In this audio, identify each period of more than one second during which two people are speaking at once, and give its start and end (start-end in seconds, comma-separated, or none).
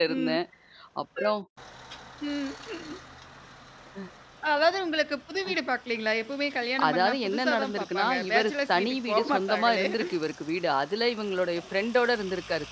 6.9-9.8